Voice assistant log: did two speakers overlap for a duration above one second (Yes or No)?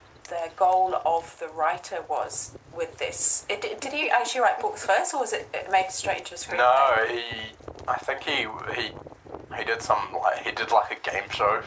No